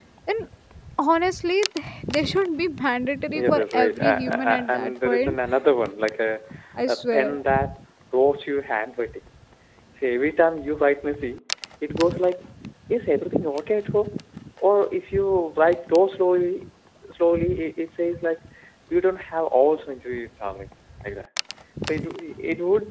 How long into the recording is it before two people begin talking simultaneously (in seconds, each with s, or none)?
3.3 s